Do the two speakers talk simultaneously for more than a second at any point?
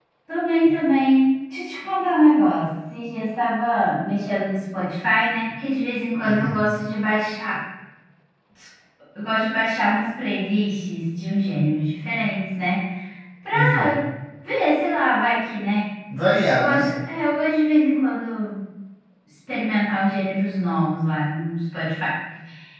No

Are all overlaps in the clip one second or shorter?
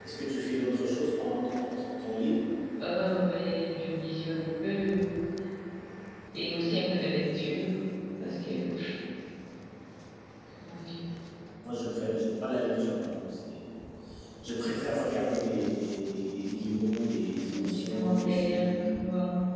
No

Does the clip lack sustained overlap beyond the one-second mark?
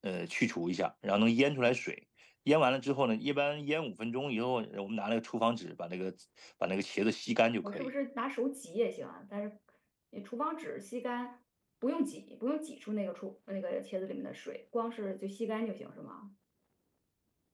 Yes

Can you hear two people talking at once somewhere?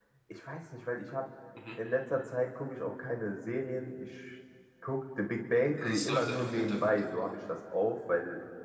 Yes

